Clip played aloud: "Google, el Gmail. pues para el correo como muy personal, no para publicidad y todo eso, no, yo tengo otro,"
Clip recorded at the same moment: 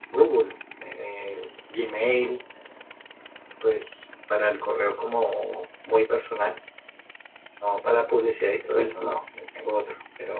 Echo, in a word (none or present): present